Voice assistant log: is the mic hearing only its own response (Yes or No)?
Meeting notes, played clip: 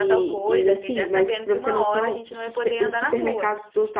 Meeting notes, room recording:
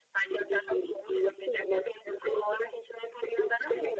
Yes